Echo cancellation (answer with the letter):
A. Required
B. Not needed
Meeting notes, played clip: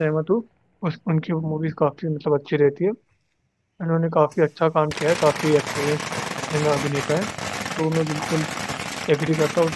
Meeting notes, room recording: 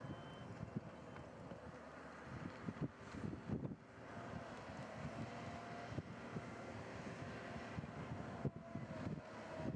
B